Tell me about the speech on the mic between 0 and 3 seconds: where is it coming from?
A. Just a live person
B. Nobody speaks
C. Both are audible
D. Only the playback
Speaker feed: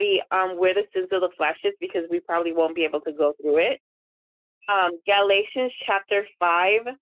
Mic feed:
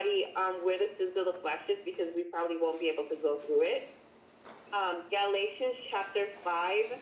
D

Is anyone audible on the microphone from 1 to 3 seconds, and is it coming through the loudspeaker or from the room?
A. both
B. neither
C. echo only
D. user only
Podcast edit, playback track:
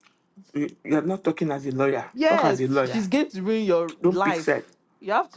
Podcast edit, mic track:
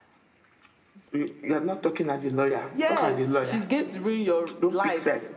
C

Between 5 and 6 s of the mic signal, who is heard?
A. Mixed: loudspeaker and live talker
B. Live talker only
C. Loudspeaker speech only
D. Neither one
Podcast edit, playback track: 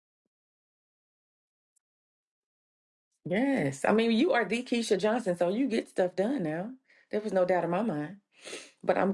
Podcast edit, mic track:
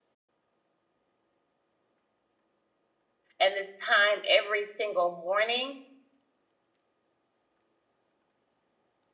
B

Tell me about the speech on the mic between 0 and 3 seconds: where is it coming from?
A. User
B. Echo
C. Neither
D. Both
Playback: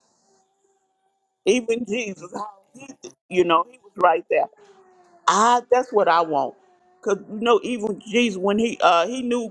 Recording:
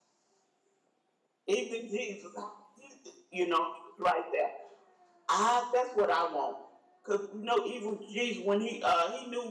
B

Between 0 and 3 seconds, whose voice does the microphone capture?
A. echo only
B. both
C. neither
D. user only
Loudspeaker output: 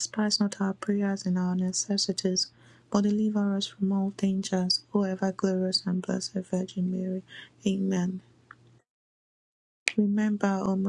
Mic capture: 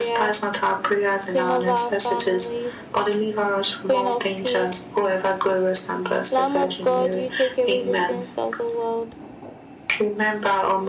B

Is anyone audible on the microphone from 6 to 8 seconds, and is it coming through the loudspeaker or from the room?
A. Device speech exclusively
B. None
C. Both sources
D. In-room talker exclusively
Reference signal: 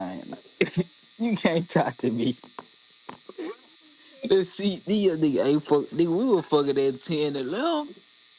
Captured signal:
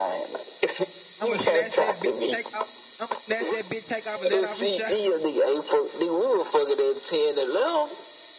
A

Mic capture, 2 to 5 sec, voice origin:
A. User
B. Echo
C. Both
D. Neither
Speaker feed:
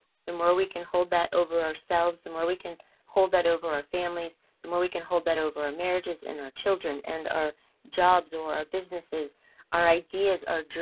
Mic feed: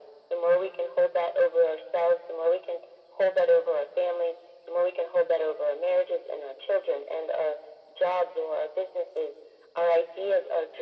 B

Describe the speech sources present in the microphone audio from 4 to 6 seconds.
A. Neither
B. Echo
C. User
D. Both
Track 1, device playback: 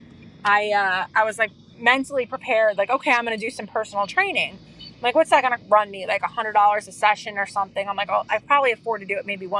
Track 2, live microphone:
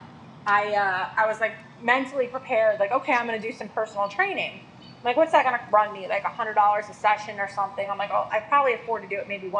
B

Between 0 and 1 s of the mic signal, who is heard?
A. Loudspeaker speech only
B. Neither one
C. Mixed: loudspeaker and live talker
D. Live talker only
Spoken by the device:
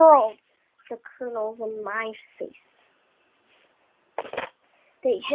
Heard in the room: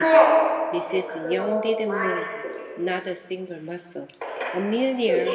C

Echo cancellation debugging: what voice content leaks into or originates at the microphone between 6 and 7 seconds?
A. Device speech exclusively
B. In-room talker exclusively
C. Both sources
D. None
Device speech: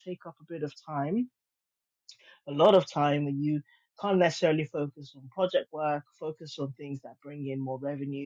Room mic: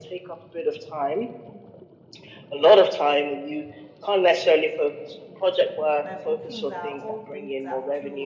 C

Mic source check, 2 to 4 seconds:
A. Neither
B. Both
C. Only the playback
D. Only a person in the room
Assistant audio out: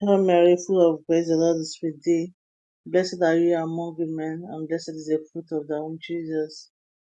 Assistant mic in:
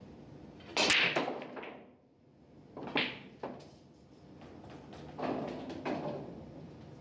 A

